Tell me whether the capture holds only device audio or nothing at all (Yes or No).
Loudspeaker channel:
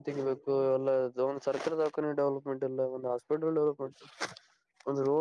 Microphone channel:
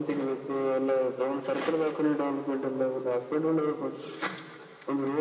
Yes